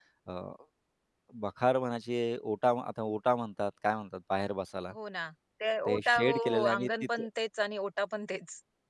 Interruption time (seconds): 6 s

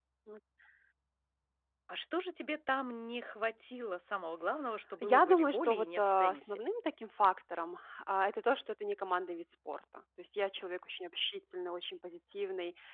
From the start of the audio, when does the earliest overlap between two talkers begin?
5 s

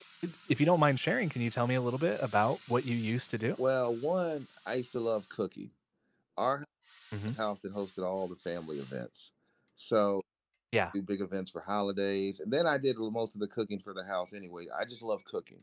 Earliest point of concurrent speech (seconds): none

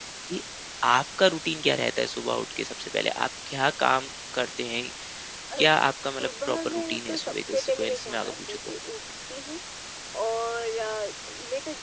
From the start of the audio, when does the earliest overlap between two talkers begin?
6 s

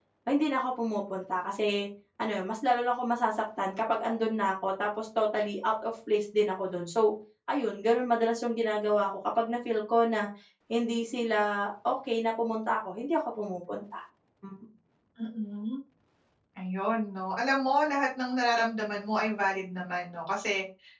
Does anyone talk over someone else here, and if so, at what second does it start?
none

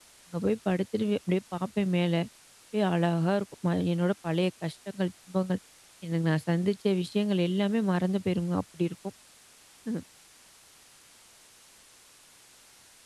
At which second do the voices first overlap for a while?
none

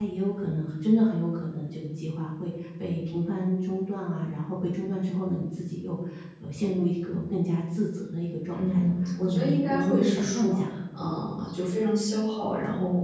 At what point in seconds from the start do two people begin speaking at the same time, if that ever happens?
9 s

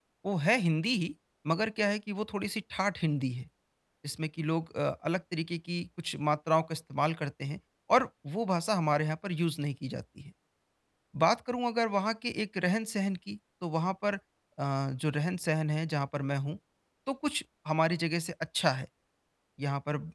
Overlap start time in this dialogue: none

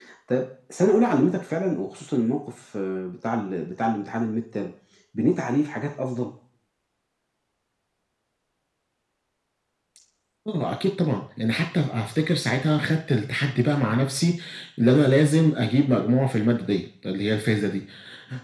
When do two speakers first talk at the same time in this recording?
none

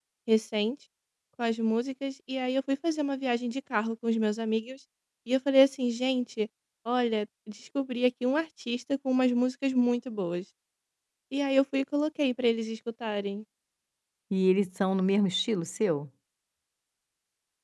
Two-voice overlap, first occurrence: none

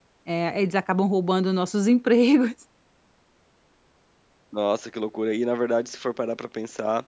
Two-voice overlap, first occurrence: none

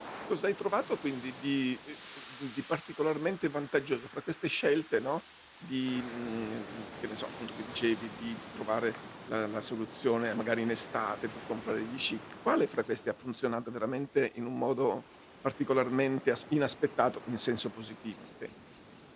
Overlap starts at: none

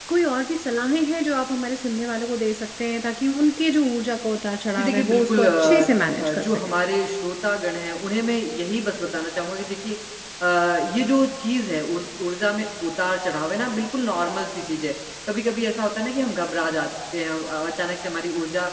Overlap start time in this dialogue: 5 s

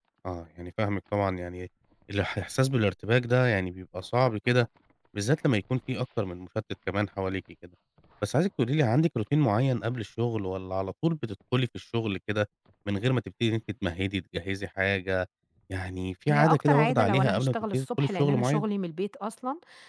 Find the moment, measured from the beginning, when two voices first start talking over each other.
16 s

